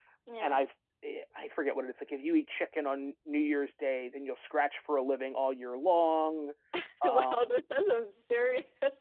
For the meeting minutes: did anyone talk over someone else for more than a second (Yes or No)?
No